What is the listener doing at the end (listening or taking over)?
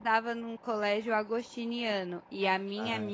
listening